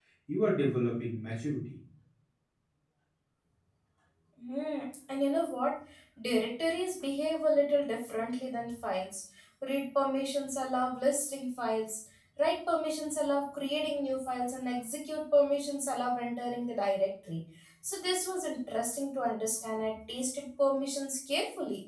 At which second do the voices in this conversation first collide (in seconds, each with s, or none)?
none